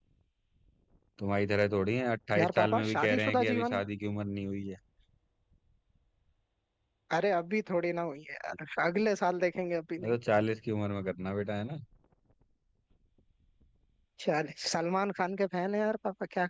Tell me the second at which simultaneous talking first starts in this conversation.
2.3 s

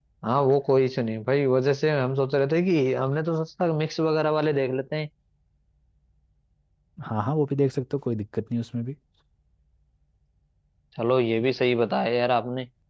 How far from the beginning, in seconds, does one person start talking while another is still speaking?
none

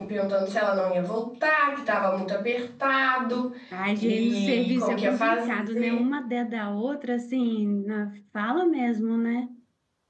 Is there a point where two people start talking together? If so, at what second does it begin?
4.0 s

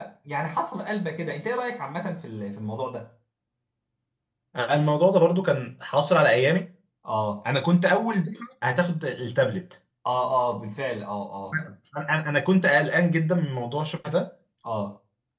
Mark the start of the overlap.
none

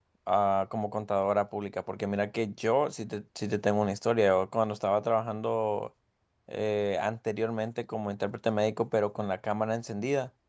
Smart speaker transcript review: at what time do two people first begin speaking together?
none

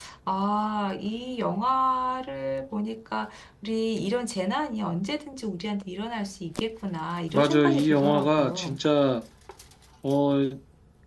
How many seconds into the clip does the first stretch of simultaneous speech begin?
7.3 s

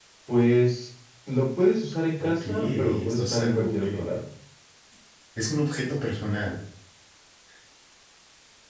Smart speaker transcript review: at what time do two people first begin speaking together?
2.2 s

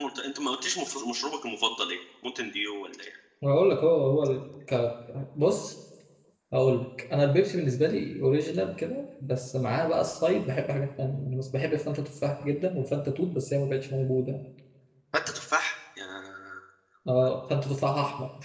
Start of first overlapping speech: none

